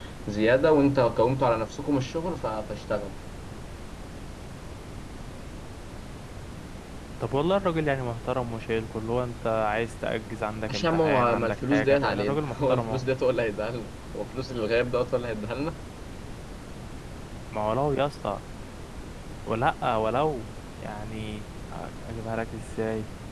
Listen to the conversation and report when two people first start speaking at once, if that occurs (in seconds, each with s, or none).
10.6 s